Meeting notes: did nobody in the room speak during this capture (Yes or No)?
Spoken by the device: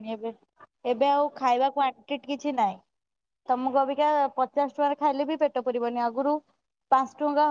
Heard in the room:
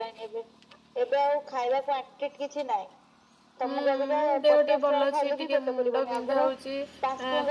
No